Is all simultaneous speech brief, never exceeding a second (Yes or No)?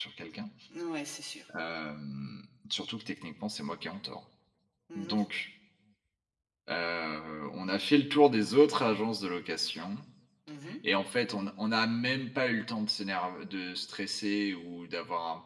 Yes